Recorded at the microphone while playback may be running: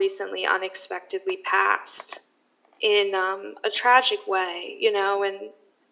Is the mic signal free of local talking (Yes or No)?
Yes